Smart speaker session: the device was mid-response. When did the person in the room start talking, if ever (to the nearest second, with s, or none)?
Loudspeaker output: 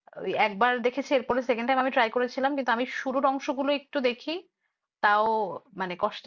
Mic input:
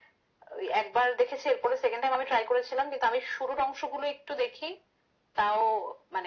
none